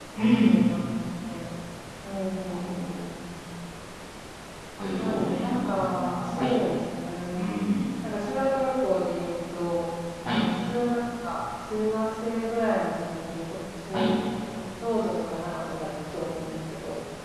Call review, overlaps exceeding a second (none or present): present